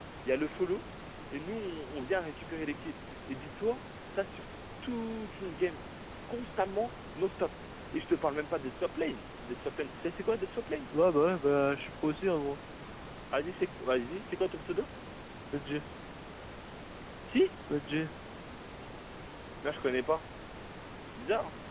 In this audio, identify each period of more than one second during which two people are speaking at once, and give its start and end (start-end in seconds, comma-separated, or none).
none